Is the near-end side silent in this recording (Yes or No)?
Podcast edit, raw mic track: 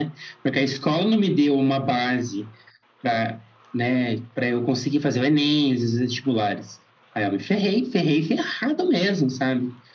Yes